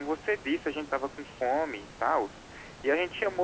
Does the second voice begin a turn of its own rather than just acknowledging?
Yes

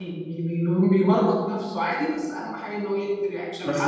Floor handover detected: Yes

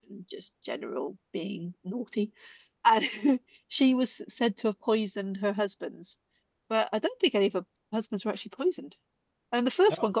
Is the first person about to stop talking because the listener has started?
No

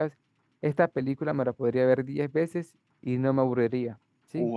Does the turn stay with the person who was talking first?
No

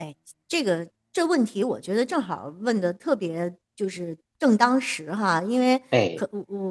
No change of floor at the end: Yes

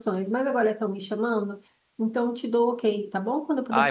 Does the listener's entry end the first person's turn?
Yes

